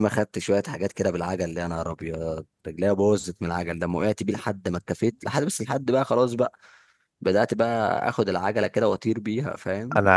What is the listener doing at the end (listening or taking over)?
taking over